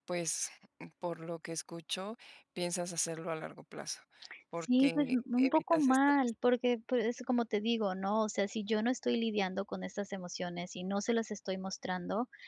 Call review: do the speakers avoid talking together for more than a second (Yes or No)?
No